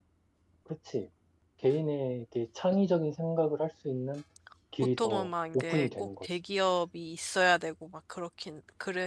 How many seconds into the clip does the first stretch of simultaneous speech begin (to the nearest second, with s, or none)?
5 s